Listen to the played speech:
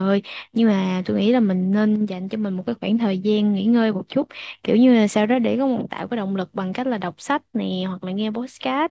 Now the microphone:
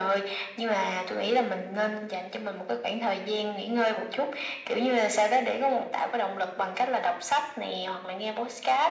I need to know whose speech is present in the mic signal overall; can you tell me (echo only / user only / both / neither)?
echo only